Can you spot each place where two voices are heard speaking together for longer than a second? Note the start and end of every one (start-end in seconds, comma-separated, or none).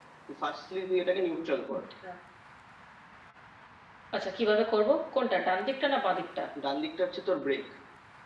none